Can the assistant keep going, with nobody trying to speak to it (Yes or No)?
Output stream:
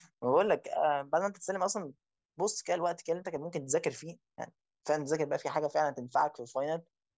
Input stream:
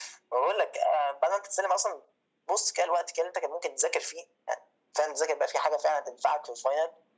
Yes